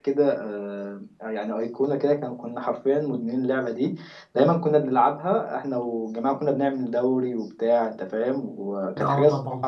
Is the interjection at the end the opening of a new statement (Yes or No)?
No